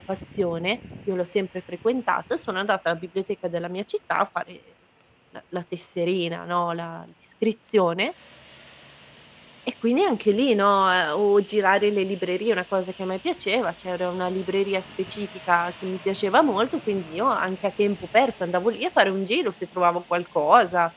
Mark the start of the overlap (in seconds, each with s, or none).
none